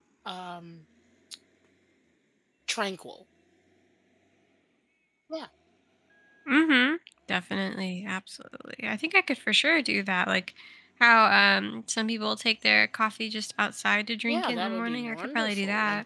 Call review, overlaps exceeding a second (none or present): present